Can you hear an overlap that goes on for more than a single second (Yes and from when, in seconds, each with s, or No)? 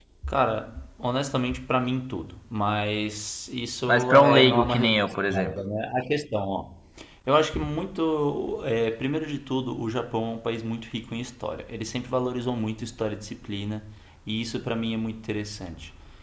Yes, from 3.9 s